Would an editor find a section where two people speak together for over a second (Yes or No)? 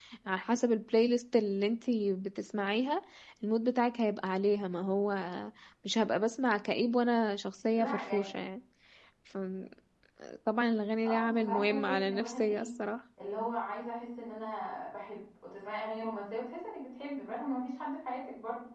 Yes